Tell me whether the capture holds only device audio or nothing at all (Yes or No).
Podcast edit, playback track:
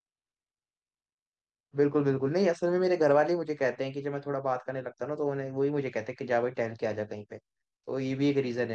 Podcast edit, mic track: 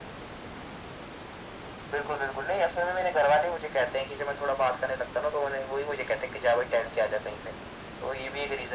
Yes